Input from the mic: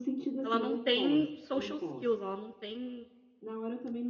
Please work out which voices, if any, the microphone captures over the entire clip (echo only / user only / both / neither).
both